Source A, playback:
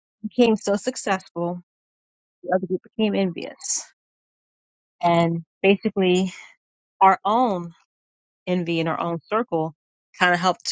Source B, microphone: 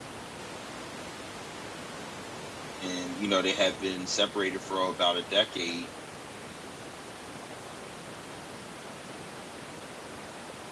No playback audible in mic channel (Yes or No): Yes